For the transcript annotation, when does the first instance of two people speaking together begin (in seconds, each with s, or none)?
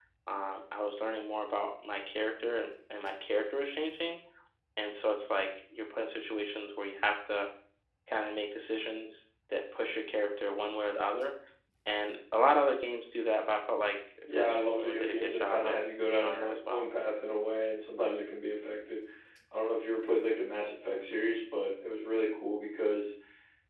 14.3 s